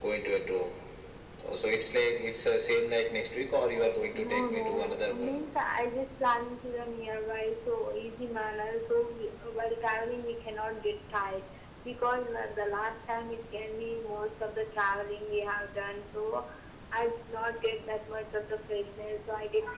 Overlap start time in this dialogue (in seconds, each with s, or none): 4.1 s